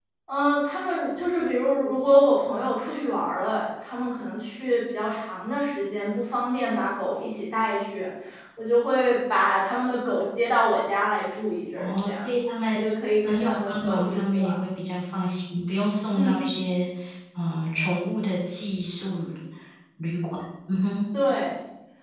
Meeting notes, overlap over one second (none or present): present